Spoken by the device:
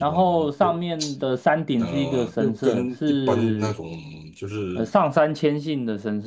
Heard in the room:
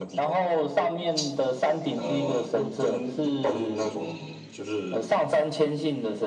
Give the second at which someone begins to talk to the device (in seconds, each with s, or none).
none